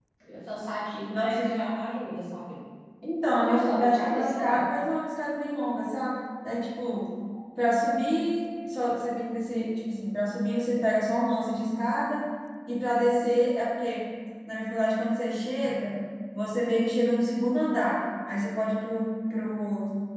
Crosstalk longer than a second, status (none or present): present